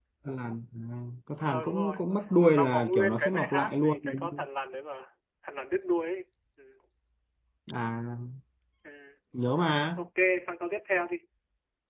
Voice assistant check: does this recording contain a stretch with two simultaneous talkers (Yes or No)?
Yes